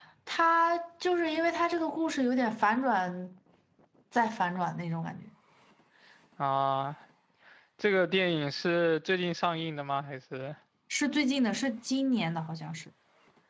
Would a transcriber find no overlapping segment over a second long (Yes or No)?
Yes